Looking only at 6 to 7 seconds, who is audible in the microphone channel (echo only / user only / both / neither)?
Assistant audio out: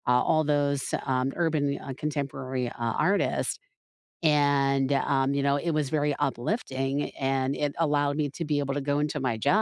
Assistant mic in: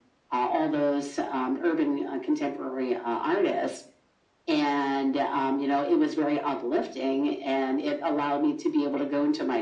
echo only